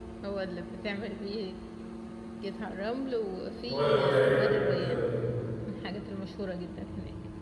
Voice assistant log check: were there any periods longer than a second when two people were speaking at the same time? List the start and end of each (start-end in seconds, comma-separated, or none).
3.7-5.0